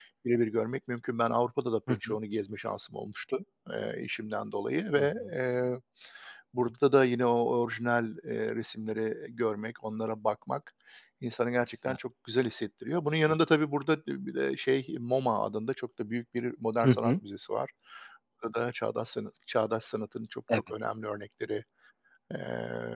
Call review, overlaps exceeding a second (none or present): none